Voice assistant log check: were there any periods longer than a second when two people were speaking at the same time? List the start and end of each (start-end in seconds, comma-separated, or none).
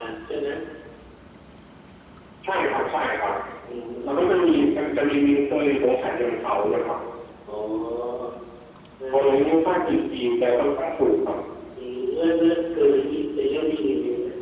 none